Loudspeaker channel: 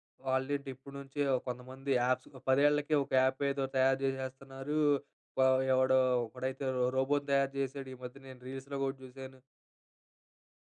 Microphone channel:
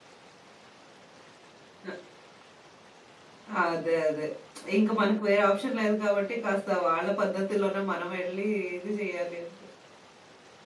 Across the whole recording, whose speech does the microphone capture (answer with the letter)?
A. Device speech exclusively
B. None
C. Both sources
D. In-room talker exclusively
D